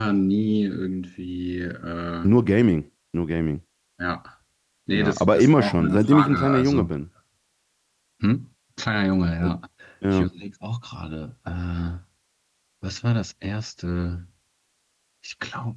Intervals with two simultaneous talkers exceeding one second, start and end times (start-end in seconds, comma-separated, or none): 4.9-6.9